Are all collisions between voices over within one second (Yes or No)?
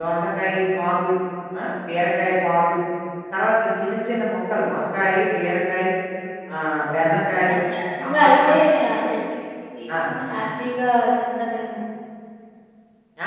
Yes